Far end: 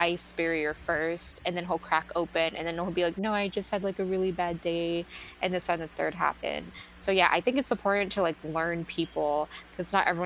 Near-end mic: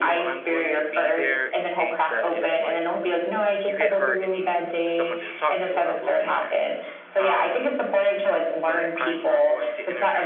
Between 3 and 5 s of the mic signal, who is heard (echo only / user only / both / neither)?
both